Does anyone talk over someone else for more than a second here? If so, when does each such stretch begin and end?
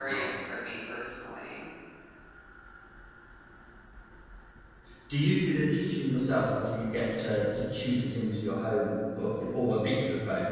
none

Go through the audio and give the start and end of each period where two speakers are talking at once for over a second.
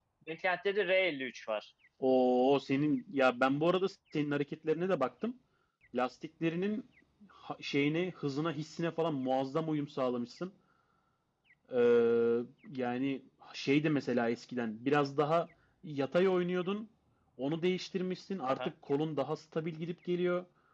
none

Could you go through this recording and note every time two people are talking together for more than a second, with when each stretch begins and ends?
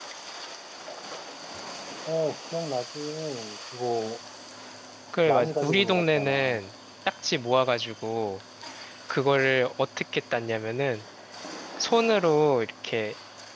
5.2-6.6

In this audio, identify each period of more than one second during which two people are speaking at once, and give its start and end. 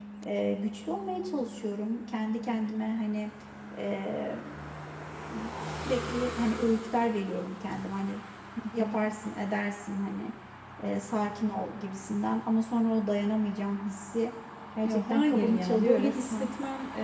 14.8-16.5

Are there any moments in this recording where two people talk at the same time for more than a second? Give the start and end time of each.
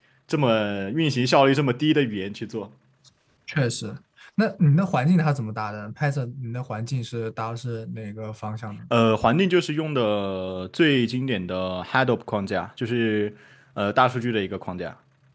none

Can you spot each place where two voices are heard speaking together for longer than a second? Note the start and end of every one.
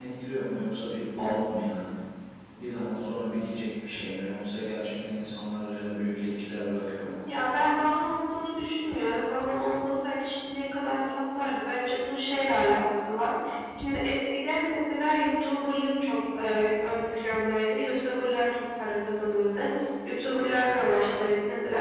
none

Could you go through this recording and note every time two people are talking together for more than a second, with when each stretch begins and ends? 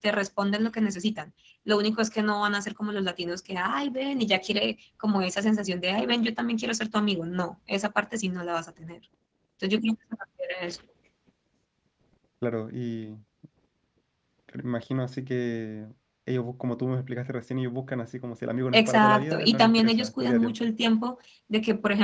18.7-20.7

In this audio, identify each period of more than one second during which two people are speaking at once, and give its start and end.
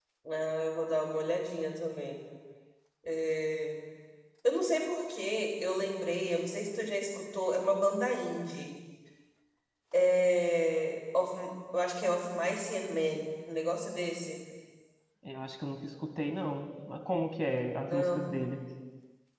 none

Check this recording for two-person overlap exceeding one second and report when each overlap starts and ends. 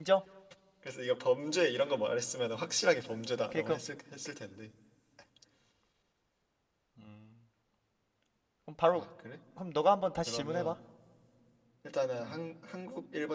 none

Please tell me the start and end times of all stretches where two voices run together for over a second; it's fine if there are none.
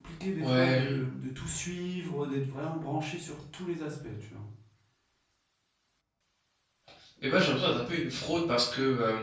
none

